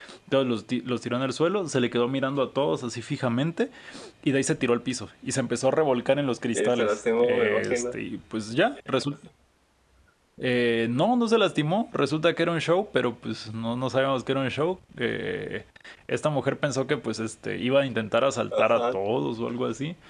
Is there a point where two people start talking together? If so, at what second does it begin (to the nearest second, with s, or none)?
7 s